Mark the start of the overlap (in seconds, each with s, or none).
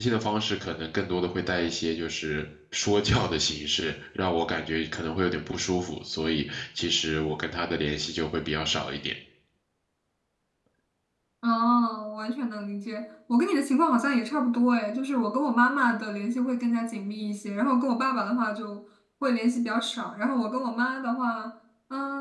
none